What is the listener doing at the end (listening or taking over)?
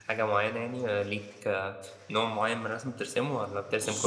taking over